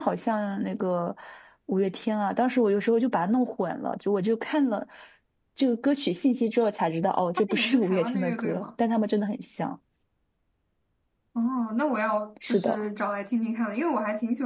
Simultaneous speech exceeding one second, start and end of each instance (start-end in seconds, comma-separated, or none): 7.4-8.6